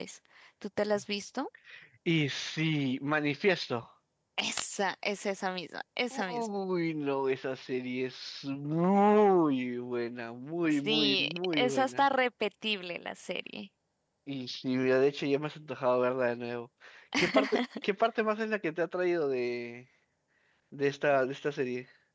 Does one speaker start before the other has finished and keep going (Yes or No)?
Yes